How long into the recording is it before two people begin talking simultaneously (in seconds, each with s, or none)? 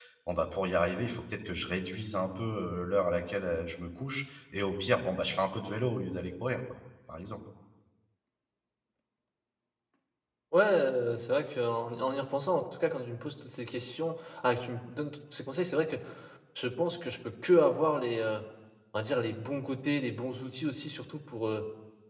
none